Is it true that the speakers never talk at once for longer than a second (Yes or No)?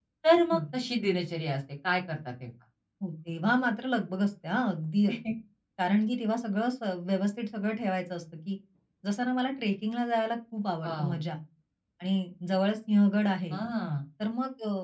Yes